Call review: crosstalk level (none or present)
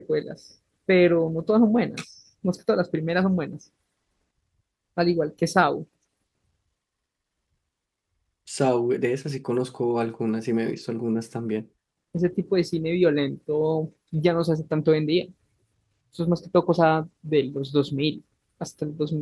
none